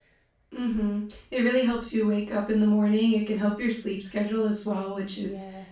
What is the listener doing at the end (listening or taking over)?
listening